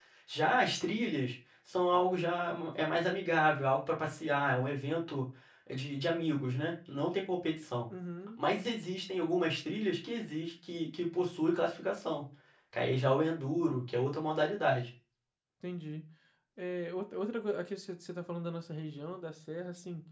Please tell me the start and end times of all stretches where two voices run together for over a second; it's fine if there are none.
none

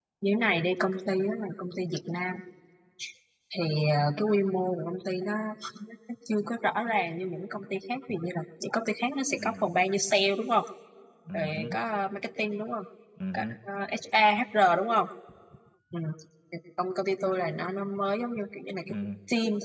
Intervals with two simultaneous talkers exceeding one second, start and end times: none

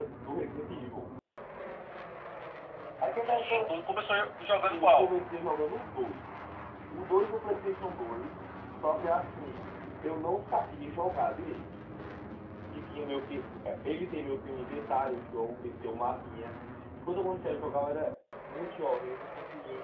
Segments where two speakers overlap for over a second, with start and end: none

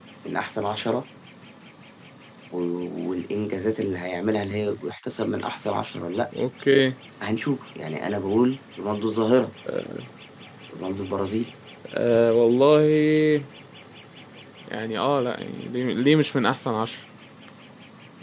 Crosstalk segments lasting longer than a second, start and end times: none

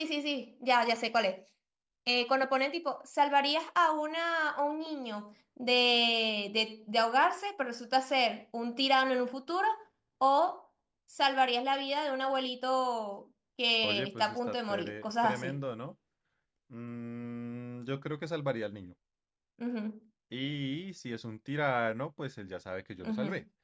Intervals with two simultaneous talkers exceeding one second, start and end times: 13.8-15.6

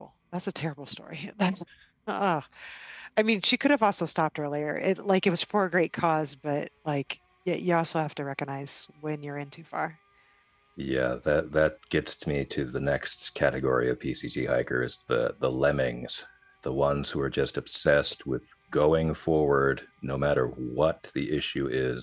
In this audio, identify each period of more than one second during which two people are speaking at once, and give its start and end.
none

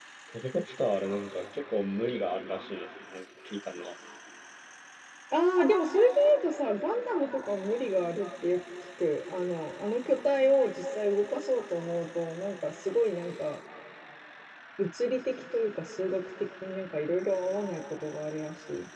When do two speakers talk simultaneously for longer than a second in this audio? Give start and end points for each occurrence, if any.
none

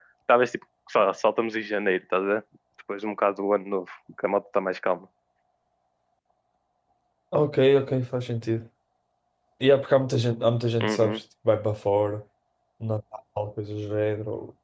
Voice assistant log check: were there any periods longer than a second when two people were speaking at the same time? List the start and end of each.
none

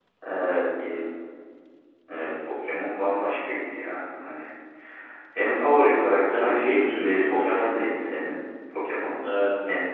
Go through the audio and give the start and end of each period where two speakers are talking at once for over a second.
6.3-7.7

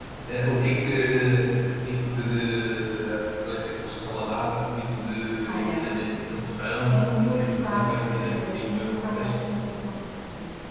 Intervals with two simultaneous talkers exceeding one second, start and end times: 6.9-9.4

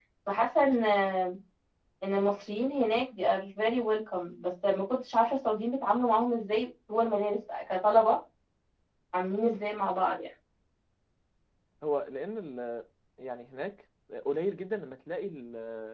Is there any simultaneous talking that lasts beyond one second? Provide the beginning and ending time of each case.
none

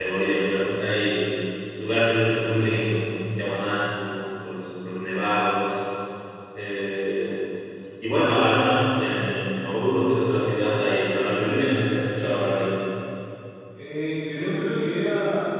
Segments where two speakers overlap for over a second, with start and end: none

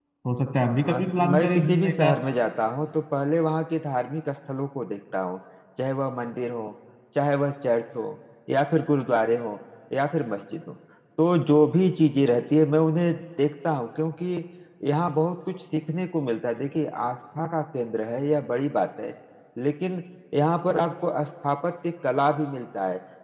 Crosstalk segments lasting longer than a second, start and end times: 0.8-2.1

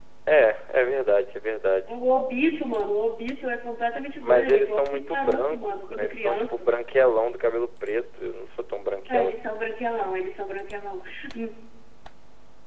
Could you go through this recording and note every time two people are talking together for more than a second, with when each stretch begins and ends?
4.2-6.7

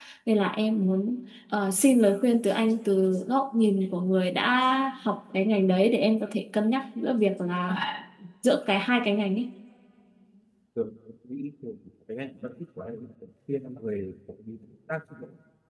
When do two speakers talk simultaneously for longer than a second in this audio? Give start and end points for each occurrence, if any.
none

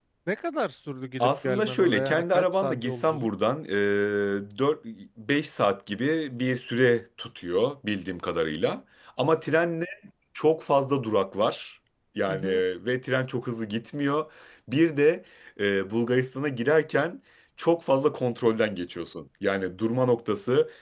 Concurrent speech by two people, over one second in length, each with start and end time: 1.2-3.3

